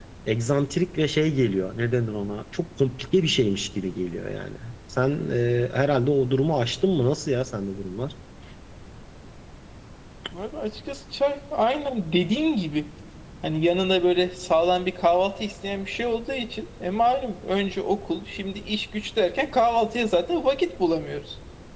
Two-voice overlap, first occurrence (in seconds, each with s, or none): none